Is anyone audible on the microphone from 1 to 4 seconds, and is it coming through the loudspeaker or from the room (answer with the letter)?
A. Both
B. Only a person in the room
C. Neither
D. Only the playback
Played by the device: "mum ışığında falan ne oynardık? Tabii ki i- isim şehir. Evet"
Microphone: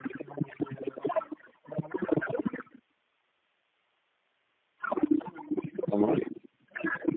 D